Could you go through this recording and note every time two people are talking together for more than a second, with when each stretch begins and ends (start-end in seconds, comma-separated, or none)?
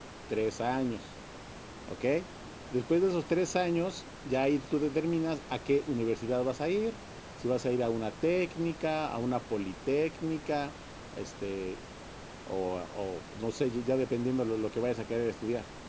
none